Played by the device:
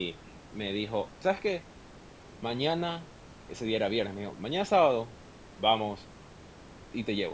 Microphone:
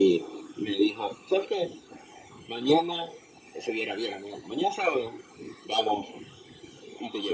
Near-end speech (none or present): none